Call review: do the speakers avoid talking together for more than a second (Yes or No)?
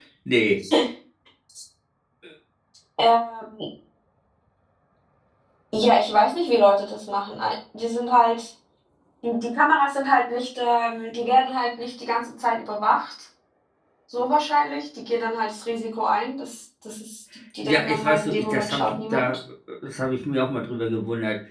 No